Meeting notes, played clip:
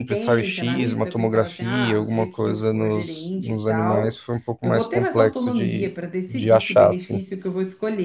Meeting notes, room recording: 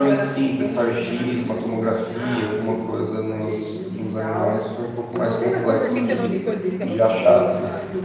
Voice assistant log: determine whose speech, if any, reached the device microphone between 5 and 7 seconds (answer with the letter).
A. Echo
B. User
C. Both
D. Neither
C